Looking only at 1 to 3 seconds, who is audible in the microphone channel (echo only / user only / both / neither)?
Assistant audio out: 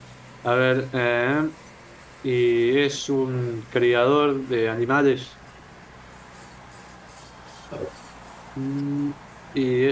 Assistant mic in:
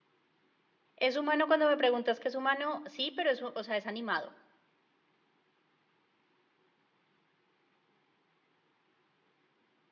user only